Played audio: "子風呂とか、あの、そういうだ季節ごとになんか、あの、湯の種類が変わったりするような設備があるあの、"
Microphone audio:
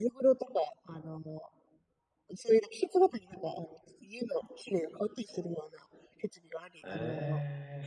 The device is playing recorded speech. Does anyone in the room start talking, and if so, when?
6.8 s

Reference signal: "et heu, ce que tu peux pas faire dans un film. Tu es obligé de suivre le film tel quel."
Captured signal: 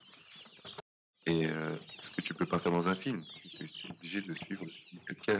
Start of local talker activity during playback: none

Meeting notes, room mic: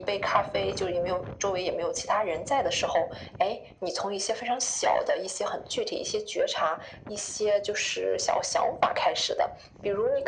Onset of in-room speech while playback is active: none

